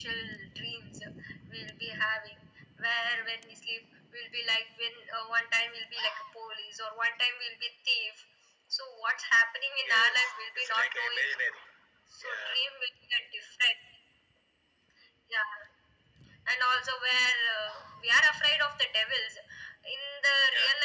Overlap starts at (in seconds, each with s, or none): 9.8 s